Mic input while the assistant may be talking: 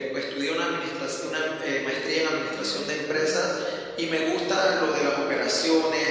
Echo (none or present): present